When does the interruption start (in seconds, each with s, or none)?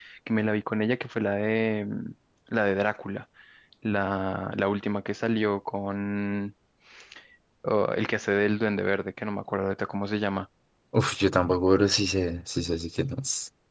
none